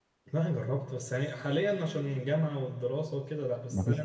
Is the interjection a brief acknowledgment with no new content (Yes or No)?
Yes